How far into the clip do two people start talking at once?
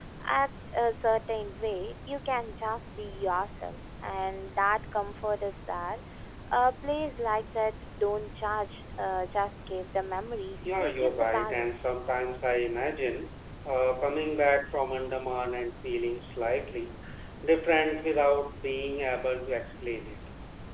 10.6 s

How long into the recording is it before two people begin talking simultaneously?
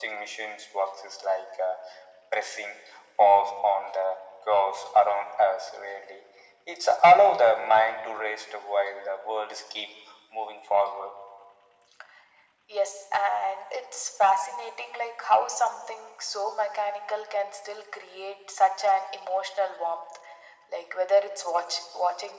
none

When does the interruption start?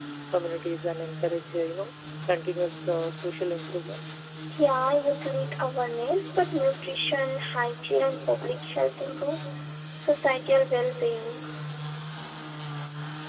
none

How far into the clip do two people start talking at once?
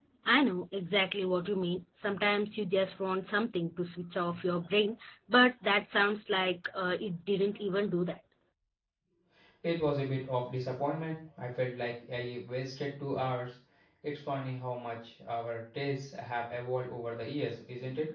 none

